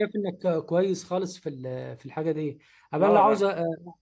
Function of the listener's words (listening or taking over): listening